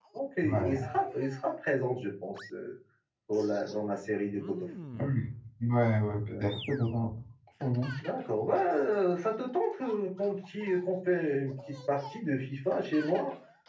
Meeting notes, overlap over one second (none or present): none